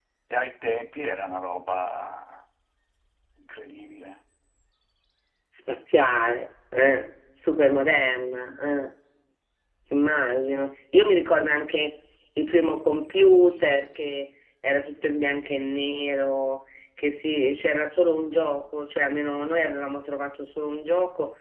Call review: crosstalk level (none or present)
none